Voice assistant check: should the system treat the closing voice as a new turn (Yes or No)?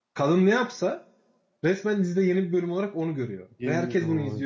No